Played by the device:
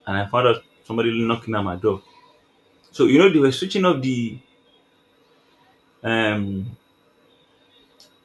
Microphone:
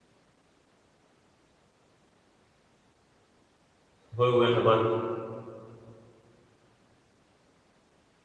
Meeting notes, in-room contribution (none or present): present